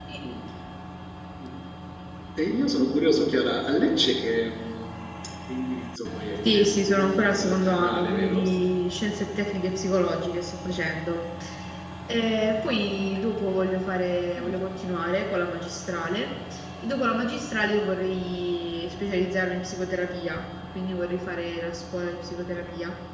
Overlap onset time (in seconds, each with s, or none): 6.4 s